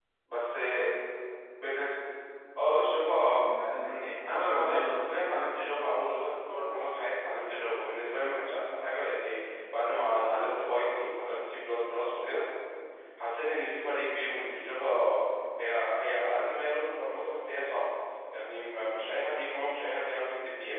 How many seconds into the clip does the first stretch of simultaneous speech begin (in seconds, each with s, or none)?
3.8 s